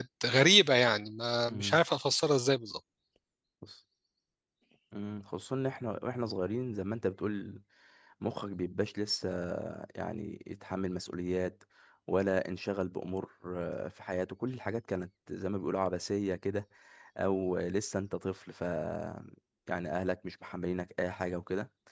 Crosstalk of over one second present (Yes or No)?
No